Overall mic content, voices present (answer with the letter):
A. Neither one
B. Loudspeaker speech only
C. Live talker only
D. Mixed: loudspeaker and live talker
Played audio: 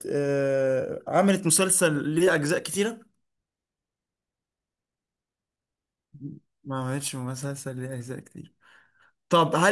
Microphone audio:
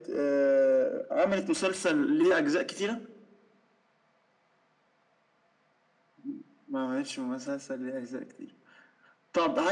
B